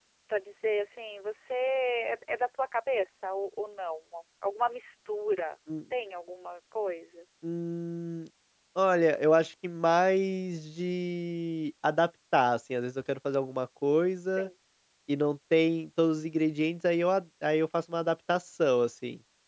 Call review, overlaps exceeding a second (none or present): none